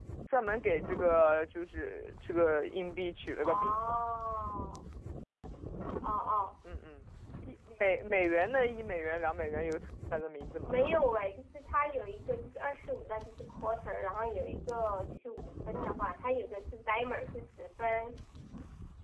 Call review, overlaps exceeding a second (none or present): none